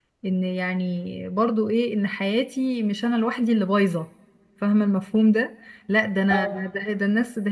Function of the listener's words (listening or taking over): listening